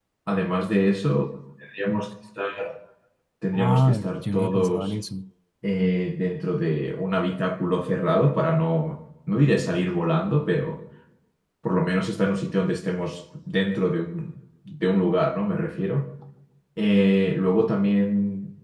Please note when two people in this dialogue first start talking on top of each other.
3.5 s

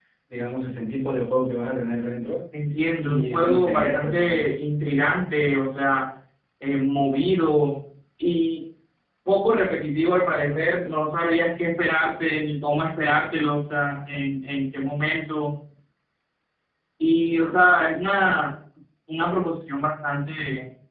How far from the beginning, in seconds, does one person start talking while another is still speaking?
3.0 s

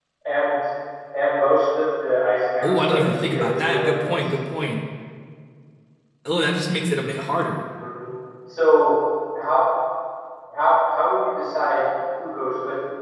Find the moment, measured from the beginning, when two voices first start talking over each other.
2.6 s

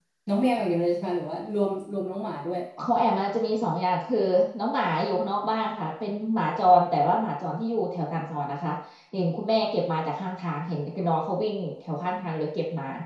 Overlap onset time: none

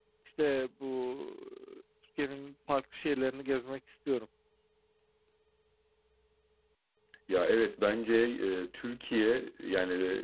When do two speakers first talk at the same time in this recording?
none

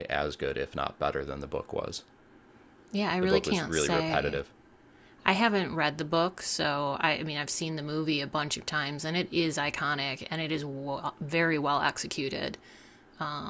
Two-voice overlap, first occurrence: 3.2 s

